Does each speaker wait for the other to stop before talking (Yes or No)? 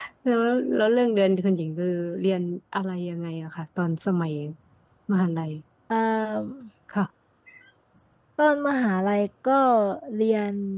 Yes